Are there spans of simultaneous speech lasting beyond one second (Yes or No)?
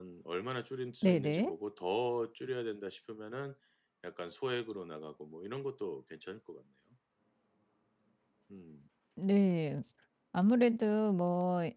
No